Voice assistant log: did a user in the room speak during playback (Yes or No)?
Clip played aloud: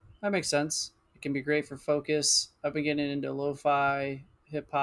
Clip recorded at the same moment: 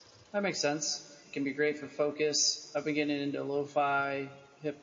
No